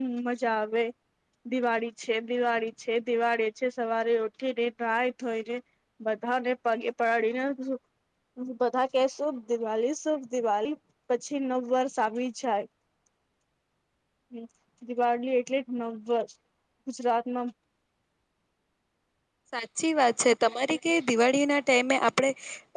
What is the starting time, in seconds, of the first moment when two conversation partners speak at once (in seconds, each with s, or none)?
none